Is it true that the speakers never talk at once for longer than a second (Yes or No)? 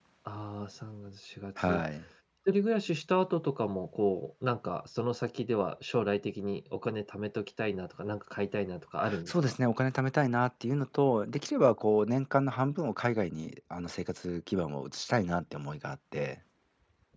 Yes